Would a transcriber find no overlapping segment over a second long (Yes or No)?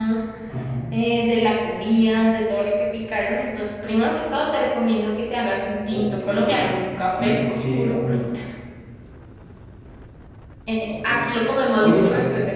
No